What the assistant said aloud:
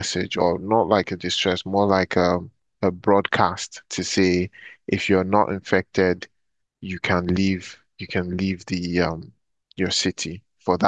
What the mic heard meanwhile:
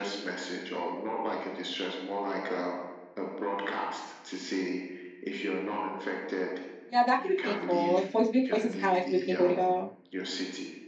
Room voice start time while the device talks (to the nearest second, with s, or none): 7 s